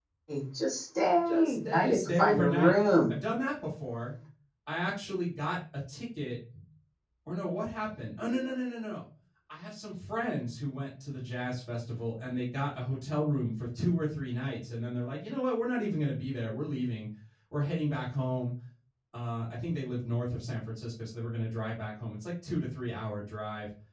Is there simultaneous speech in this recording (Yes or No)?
Yes